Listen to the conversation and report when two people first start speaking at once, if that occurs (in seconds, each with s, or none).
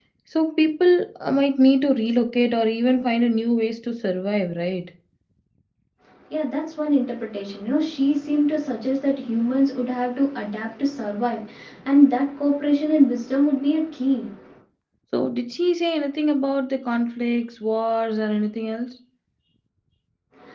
none